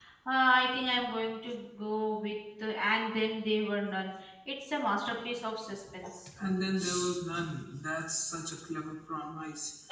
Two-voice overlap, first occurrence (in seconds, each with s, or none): none